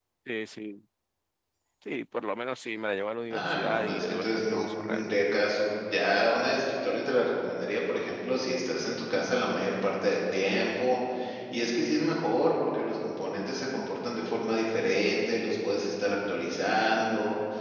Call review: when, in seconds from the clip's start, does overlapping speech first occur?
3.3 s

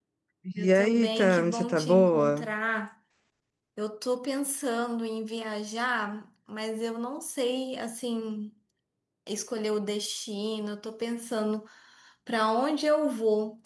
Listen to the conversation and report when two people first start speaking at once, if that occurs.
0.6 s

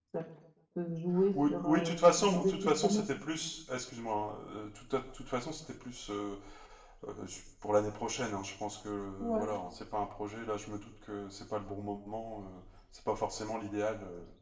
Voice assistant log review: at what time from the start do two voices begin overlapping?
1.4 s

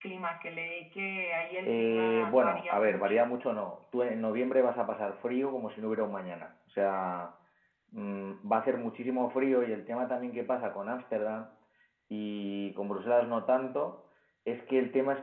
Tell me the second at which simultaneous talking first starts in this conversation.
1.6 s

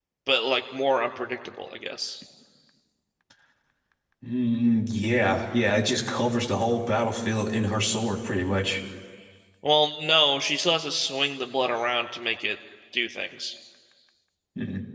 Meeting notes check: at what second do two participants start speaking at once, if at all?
none

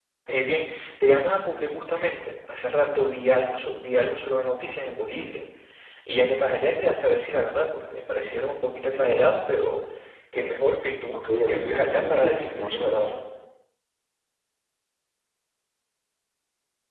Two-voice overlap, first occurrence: 11.1 s

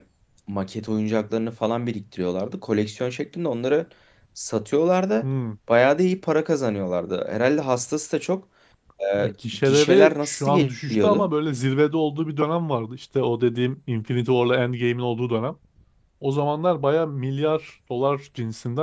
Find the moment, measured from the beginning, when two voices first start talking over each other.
9.2 s

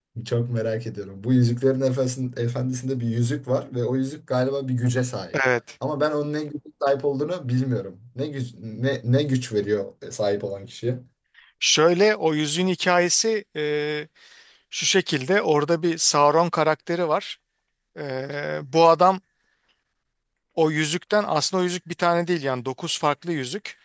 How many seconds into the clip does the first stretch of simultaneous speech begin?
none

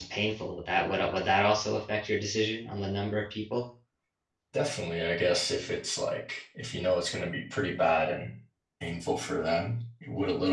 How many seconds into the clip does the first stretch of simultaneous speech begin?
none

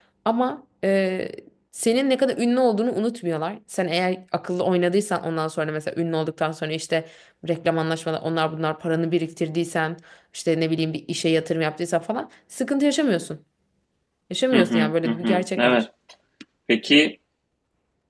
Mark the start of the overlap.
14.5 s

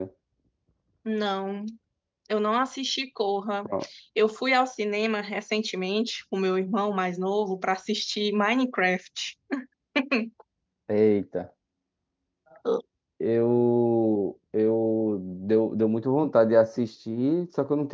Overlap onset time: none

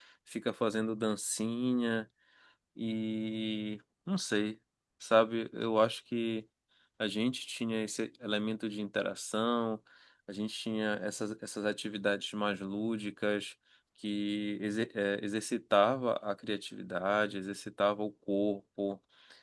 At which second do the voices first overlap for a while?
none

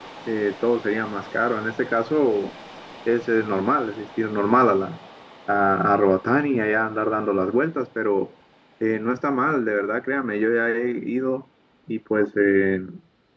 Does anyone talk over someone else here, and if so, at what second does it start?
none

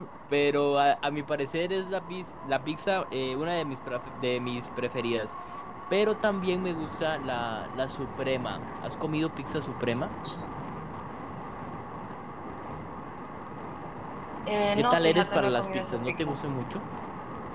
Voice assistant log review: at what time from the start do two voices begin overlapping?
14.8 s

